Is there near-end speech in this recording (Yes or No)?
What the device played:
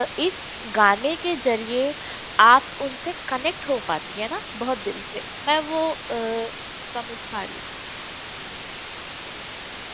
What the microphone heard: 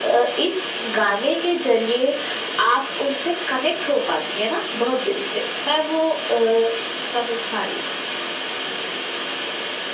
No